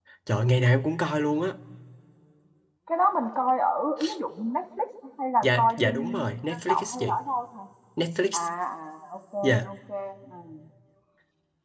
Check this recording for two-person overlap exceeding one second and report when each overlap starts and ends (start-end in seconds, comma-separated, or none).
5.4-7.2